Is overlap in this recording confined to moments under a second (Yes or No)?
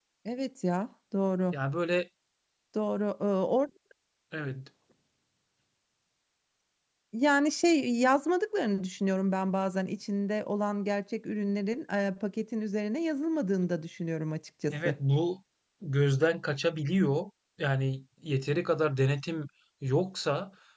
Yes